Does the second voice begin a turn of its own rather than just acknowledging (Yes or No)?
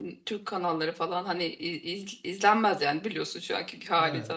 No